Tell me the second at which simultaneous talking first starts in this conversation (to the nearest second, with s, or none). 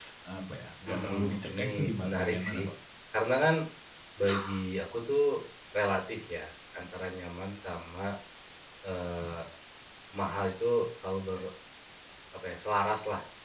1 s